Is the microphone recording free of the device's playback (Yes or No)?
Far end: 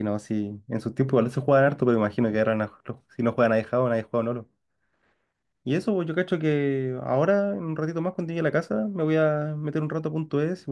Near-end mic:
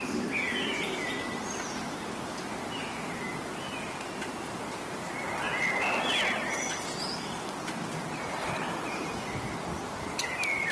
Yes